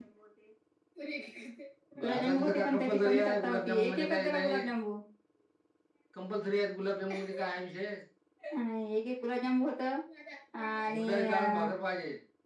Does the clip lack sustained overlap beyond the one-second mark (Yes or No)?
No